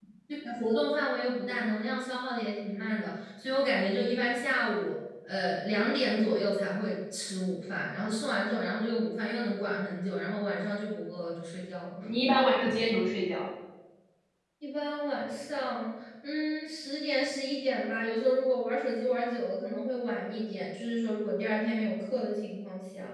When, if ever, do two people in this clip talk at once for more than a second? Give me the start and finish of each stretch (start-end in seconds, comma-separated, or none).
none